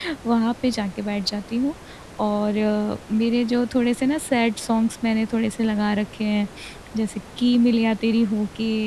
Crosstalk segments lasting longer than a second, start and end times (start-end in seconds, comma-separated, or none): none